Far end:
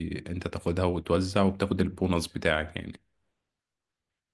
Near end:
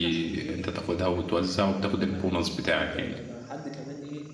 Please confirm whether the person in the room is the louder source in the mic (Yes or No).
No